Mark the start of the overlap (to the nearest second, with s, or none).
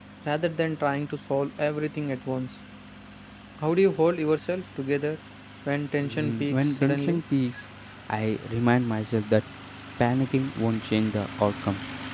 6 s